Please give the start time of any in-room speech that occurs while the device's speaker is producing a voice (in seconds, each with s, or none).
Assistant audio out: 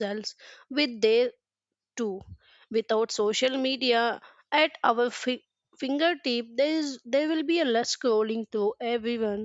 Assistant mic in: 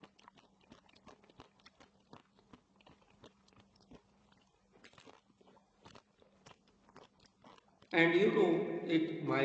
7.9 s